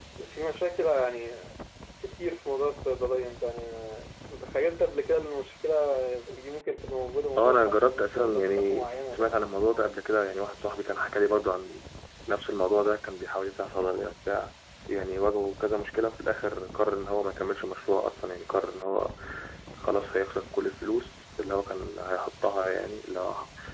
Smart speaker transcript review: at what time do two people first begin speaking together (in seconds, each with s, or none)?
7.4 s